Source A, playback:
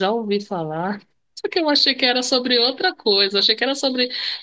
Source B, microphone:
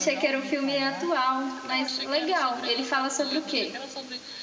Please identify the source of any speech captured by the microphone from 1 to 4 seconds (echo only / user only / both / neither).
both